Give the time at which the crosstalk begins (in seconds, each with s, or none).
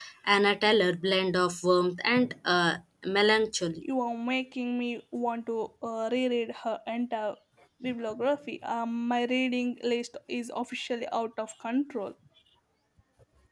none